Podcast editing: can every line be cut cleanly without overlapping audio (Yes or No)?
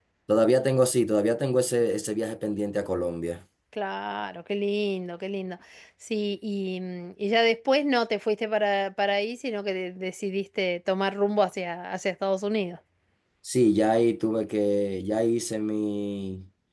Yes